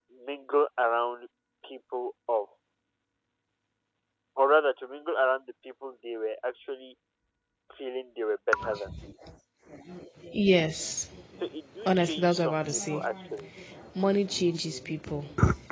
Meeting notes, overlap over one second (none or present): present